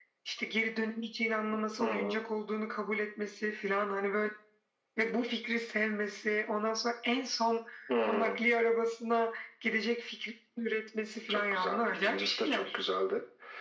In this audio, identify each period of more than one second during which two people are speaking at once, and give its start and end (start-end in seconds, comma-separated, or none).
11.3-12.7